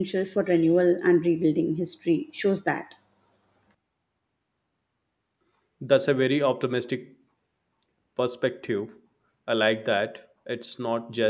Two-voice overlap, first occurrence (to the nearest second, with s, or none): none